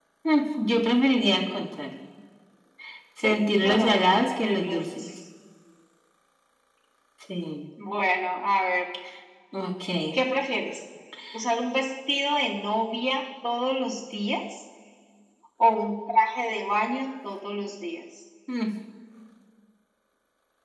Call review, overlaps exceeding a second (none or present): present